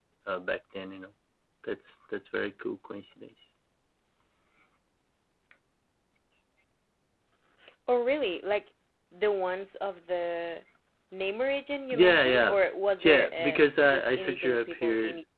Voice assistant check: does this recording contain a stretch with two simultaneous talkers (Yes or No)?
Yes